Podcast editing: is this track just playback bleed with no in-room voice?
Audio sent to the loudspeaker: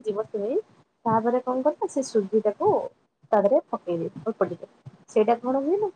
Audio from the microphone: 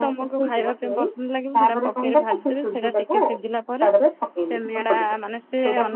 No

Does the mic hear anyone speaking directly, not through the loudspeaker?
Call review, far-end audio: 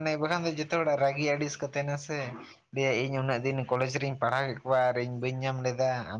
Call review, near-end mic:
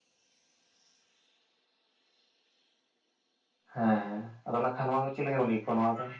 Yes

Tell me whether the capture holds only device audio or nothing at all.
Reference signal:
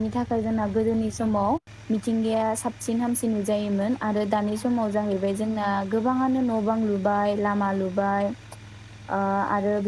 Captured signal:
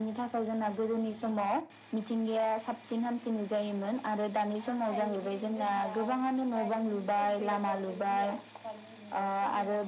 No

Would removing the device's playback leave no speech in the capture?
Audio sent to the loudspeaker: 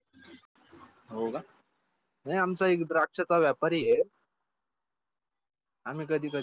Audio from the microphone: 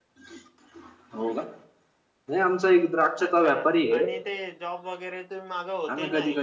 No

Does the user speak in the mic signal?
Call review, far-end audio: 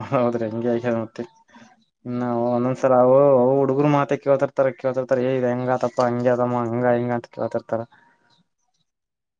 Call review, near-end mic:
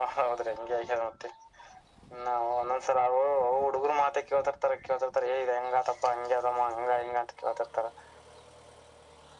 No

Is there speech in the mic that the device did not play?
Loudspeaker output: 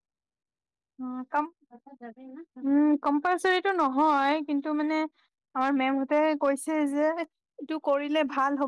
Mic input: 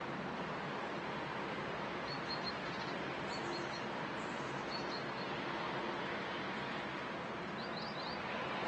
No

